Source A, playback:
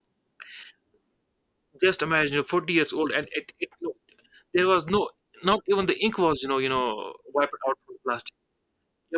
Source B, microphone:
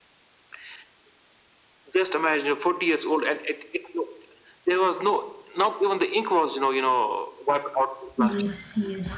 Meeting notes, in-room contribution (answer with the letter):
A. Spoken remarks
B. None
A